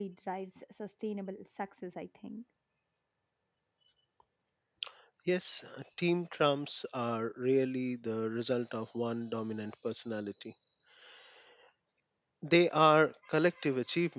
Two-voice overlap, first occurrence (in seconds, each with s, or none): none